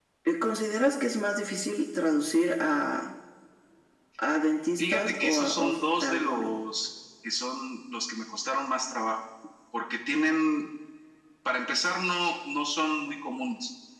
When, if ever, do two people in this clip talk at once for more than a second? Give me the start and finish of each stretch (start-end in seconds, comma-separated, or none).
4.8-6.6